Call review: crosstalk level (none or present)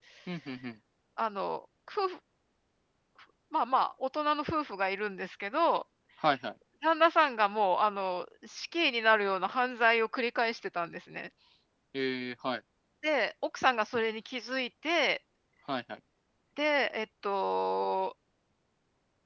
none